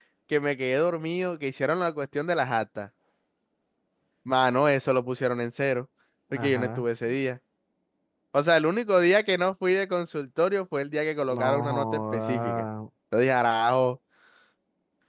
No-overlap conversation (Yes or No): No